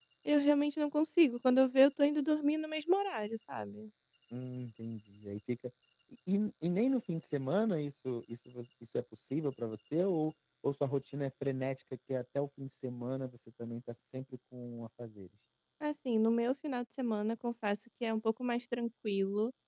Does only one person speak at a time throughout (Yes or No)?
Yes